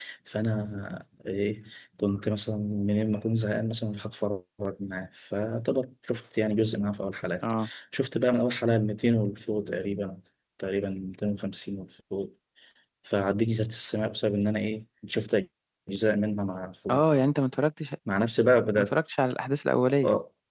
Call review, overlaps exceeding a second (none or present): none